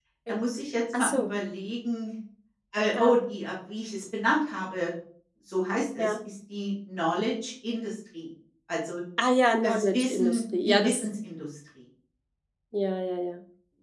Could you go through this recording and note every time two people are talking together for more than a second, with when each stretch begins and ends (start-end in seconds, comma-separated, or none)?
9.6-11.1